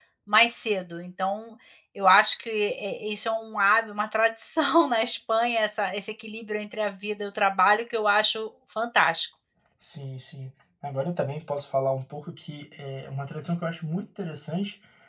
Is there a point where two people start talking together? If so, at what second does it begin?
none

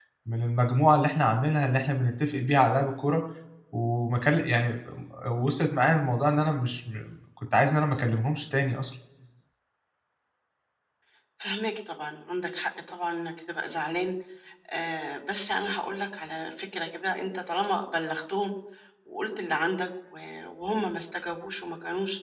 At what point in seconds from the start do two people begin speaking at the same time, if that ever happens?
none

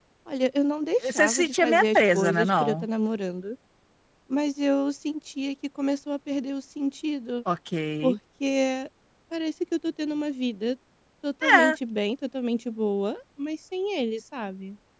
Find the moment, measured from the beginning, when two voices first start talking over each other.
1 s

